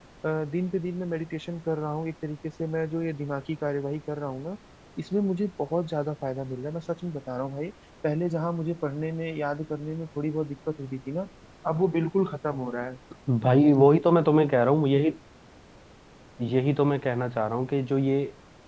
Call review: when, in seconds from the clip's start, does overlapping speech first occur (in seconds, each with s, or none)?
none